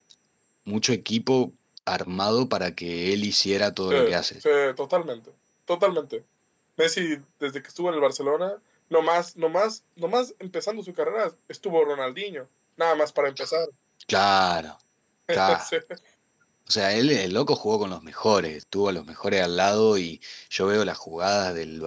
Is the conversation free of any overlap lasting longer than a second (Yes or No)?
Yes